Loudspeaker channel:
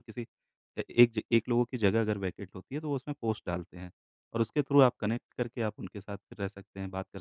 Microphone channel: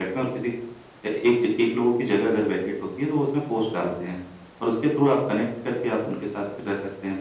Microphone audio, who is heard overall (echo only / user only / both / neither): echo only